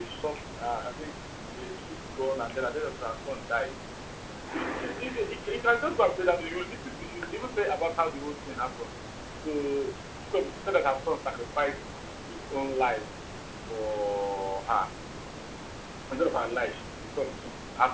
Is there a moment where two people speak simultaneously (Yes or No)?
No